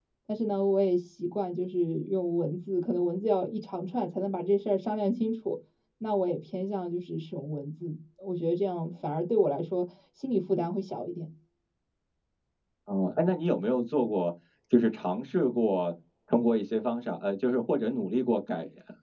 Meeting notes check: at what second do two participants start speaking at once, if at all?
none

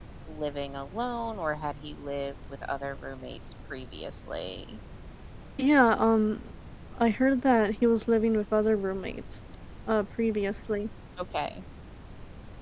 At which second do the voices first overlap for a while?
none

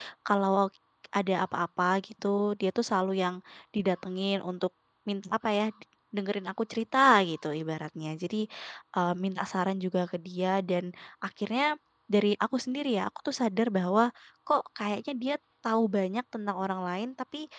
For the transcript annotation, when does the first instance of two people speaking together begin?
none

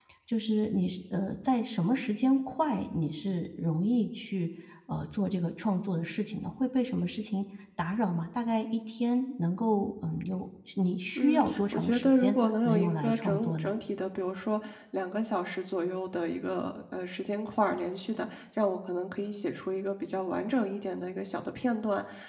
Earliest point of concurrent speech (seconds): 11.2 s

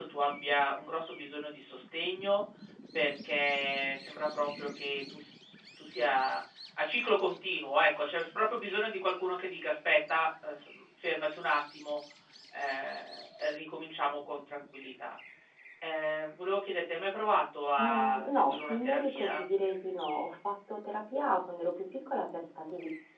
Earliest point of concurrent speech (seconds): 17.8 s

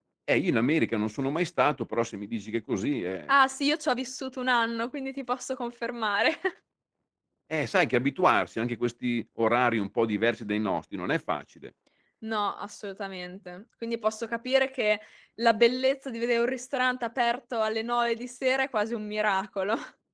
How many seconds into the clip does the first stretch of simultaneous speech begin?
none

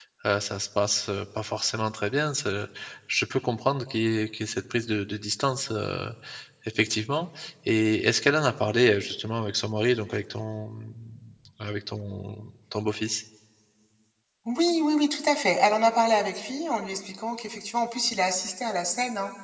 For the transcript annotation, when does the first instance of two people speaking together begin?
none

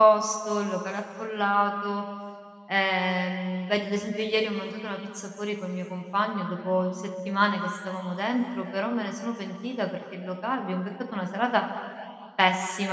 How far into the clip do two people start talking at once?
none

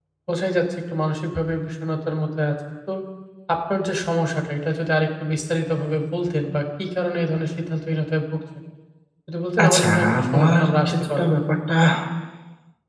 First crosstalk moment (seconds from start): 9.6 s

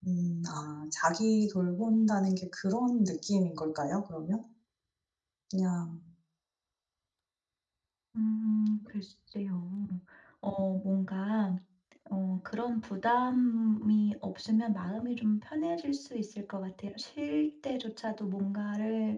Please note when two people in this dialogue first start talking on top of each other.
none

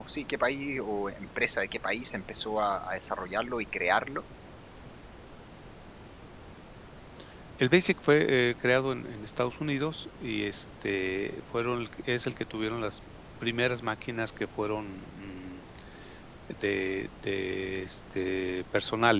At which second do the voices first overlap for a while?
none

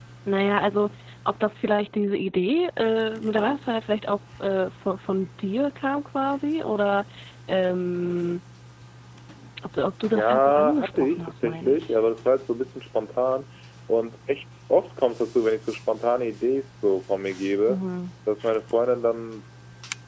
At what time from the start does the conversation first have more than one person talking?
10.2 s

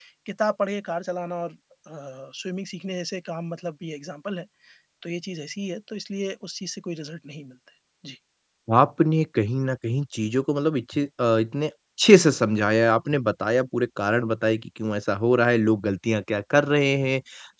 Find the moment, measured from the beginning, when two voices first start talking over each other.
none

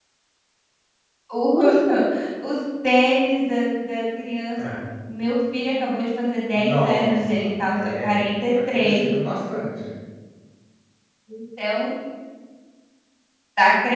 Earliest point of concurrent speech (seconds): 6.5 s

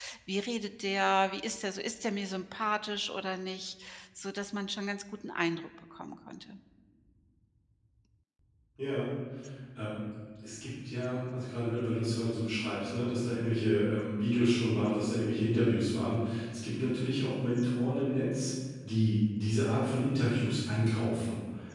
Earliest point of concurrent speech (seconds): none

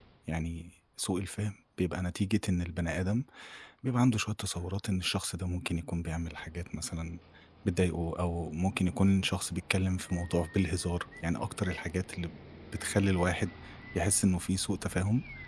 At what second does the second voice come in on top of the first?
none

